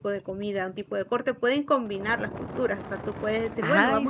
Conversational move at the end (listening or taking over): listening